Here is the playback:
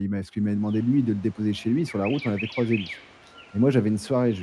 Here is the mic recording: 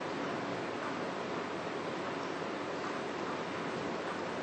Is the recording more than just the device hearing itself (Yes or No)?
No